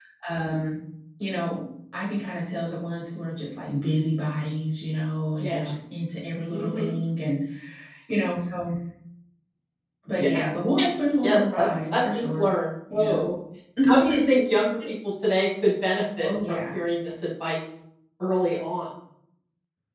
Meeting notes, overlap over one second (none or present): present